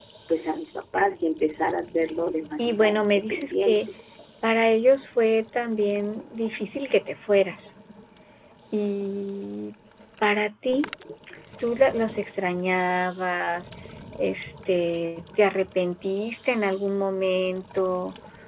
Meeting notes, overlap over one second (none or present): present